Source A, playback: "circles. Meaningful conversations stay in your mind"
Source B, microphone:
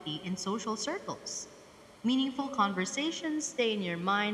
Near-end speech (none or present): none